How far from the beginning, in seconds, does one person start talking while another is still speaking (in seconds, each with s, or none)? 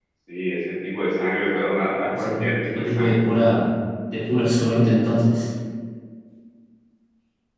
2.1 s